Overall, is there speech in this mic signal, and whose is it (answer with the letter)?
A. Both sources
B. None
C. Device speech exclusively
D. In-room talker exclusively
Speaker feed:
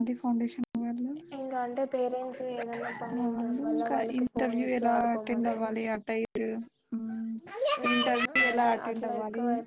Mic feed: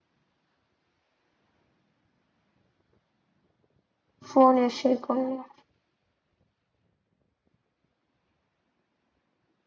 D